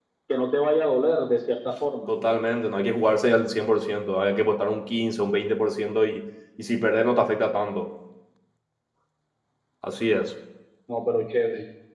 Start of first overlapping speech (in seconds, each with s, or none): none